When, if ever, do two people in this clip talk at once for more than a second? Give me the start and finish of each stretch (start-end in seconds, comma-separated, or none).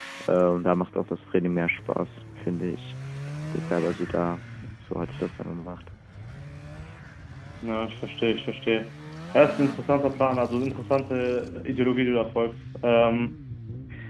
none